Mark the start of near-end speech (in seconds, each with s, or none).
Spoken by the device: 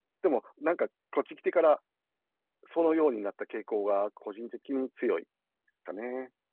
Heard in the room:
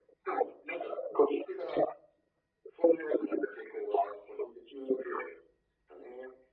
none